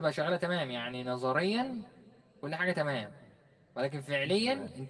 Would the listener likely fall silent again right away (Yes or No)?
Yes